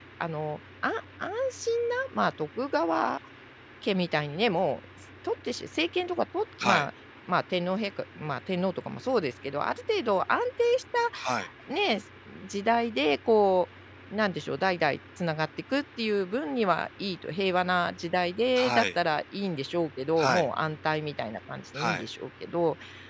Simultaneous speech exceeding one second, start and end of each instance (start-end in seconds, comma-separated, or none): none